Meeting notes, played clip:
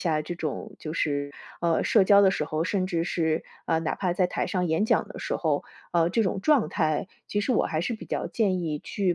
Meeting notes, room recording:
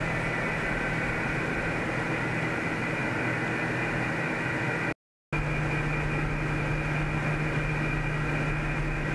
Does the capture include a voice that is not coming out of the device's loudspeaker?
No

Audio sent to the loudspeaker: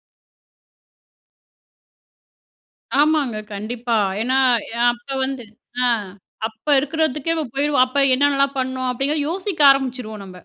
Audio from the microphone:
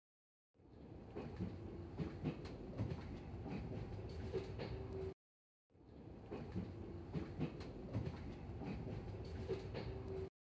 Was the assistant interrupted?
No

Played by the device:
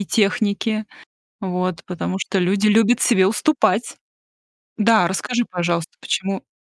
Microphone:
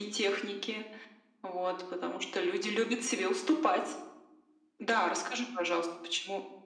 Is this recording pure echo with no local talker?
Yes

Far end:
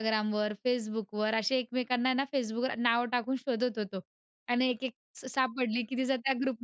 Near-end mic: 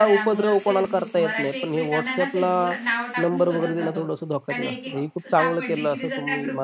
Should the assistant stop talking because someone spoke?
Yes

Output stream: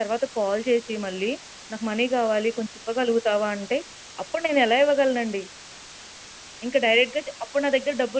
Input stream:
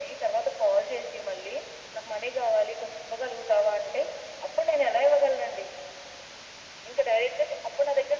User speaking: No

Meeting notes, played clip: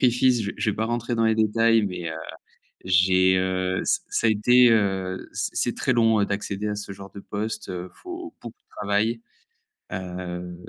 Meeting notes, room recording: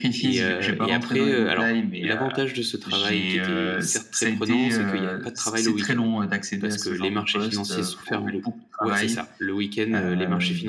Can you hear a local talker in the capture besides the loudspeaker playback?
Yes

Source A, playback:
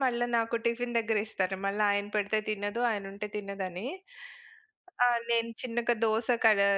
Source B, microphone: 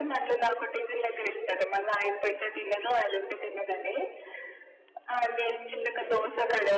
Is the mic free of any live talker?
No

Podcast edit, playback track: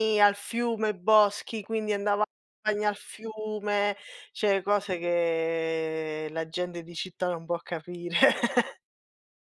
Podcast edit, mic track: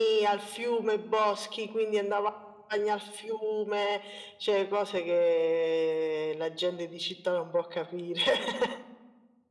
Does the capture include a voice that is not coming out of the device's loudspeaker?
No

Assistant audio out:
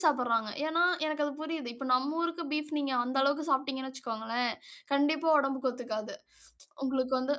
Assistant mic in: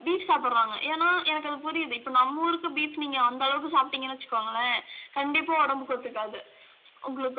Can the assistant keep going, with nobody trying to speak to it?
Yes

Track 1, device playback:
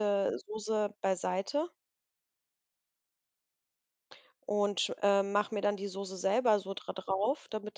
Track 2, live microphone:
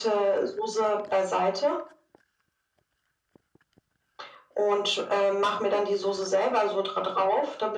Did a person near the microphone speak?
No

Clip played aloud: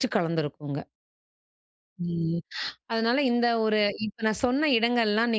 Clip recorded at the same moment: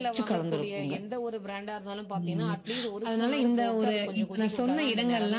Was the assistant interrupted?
Yes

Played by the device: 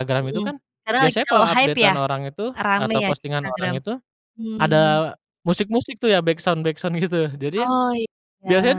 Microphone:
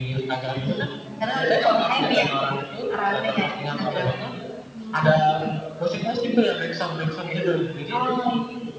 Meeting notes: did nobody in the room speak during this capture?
Yes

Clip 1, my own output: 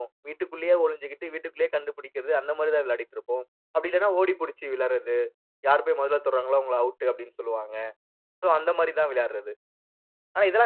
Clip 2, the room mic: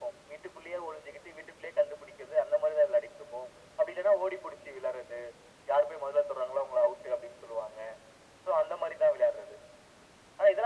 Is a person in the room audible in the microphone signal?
No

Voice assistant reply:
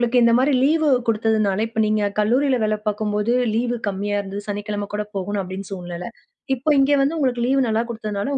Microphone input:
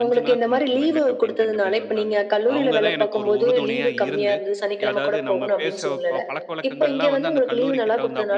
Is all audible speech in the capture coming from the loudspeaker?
No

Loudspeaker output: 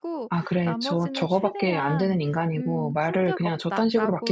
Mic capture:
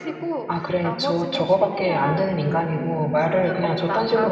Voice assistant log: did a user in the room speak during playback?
No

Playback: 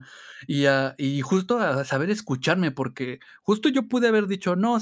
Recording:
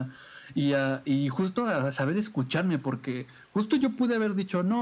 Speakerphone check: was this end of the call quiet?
Yes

